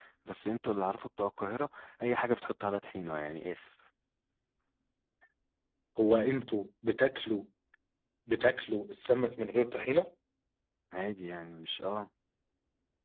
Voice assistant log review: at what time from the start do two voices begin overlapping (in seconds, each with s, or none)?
none